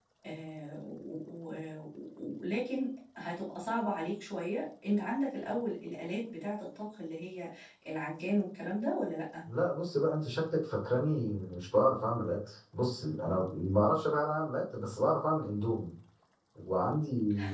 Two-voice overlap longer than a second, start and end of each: none

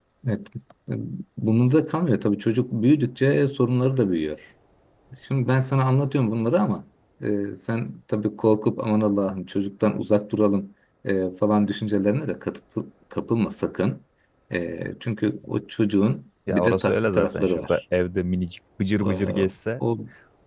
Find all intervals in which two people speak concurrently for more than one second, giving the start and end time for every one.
16.5-17.8

